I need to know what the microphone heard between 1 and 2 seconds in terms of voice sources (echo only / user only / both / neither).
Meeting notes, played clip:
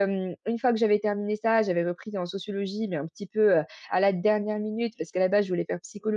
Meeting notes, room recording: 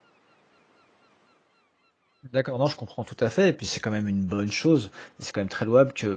neither